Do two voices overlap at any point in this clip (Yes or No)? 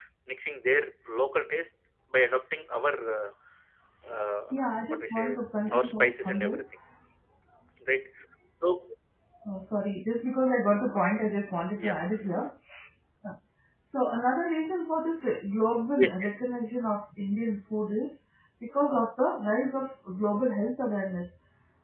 Yes